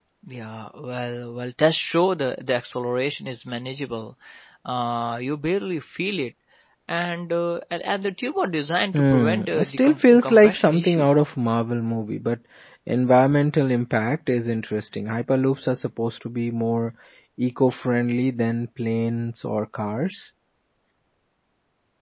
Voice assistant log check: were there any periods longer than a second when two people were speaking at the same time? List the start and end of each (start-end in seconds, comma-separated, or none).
8.9-11.1